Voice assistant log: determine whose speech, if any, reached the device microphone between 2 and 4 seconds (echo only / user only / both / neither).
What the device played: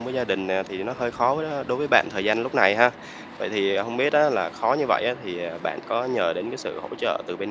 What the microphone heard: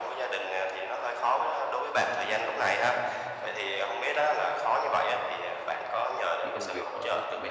echo only